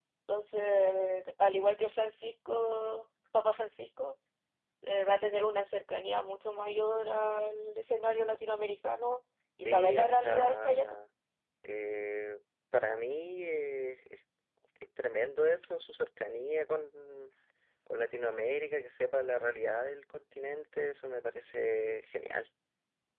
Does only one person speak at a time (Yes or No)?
No